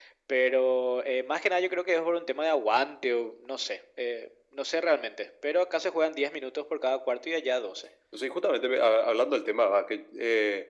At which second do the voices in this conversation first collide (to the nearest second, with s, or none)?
none